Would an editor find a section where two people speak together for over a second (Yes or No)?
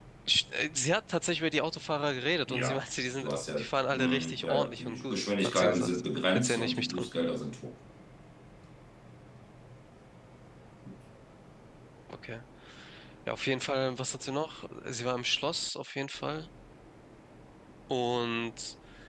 Yes